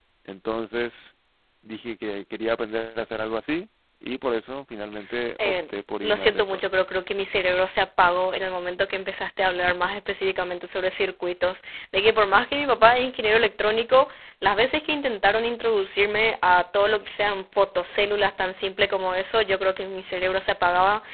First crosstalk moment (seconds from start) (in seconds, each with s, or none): 5.4 s